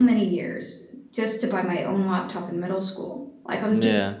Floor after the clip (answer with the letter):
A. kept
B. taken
A